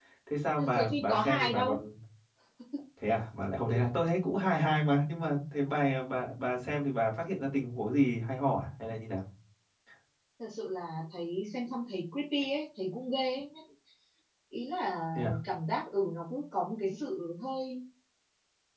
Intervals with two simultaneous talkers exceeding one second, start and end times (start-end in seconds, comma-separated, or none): 0.6-1.8